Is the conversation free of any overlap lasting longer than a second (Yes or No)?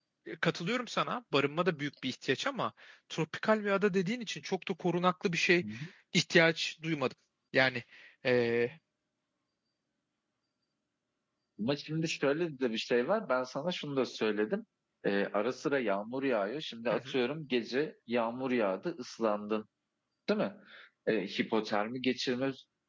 Yes